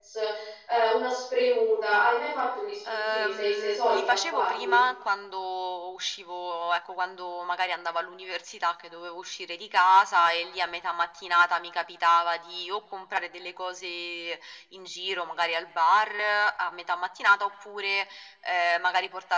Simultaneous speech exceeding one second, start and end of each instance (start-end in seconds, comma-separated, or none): 2.9-4.8